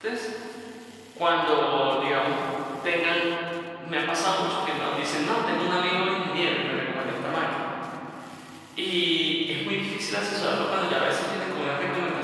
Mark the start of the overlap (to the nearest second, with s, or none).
none